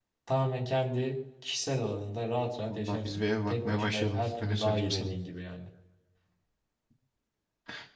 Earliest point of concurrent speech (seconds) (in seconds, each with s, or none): 2.7 s